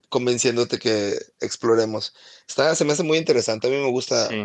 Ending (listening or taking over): taking over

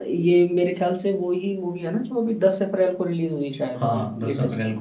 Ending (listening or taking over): taking over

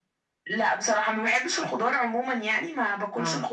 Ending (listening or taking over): listening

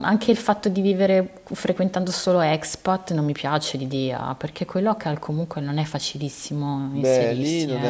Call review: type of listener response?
taking over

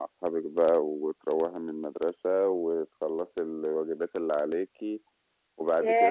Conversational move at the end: taking over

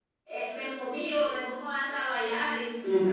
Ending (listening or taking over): taking over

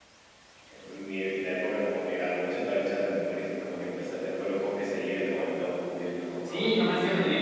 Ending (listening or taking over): taking over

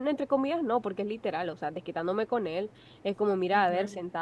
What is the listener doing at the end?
listening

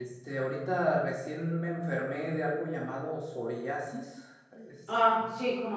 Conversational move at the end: taking over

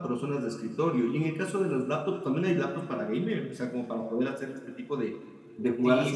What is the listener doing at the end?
taking over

